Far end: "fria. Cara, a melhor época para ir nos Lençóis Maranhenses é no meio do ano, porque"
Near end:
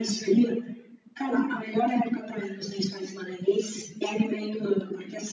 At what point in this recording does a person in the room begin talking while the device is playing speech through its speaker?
none

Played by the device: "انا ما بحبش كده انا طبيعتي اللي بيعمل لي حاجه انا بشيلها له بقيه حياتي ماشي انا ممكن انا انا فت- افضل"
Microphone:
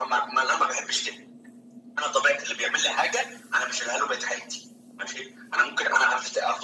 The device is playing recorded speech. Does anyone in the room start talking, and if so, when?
none

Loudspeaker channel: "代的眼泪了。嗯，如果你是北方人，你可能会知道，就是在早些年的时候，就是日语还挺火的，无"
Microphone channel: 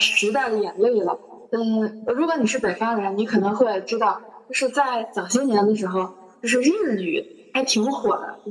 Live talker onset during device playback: none

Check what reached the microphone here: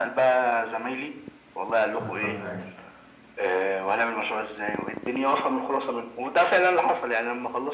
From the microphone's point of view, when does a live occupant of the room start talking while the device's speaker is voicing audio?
1.9 s

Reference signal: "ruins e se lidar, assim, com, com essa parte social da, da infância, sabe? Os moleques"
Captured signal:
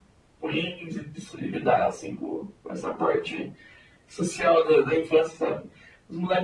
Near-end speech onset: none

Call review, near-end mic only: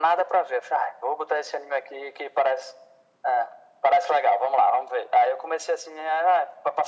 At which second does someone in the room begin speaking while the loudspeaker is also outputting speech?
none

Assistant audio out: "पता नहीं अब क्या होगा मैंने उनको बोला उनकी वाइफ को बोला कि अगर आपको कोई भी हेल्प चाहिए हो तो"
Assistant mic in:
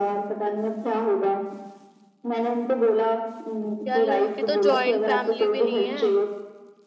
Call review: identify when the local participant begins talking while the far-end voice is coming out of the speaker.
3.9 s

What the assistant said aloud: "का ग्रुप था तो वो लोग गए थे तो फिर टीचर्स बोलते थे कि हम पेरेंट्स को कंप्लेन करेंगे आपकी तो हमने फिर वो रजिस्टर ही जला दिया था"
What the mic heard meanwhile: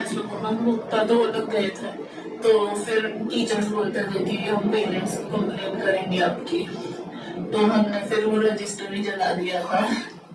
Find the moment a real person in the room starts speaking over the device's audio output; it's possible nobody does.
none

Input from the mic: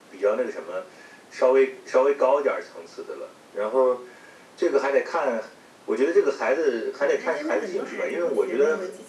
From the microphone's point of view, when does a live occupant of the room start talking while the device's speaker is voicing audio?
7.0 s

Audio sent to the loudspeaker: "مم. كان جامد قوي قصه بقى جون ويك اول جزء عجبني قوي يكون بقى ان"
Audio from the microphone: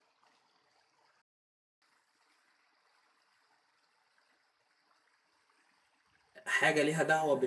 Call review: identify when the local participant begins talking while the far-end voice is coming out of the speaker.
6.5 s

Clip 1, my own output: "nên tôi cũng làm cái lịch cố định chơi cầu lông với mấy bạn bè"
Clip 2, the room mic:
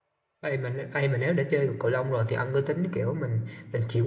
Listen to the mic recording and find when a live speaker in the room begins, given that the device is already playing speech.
0.4 s

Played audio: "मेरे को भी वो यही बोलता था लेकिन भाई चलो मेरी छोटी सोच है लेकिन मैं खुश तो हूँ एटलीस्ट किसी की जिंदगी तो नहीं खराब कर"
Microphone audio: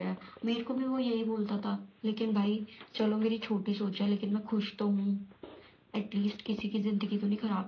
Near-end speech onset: none

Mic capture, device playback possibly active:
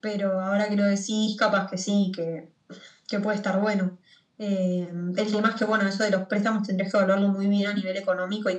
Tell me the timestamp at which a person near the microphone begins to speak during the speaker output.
none

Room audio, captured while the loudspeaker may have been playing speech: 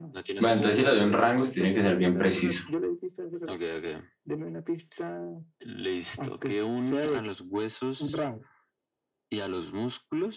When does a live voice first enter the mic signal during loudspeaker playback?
0.4 s

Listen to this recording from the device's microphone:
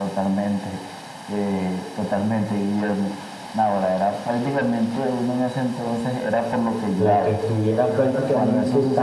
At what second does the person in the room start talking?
7.0 s

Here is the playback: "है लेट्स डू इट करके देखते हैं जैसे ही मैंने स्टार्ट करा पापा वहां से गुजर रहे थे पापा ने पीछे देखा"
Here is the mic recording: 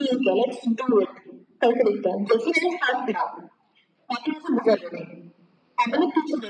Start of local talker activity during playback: none

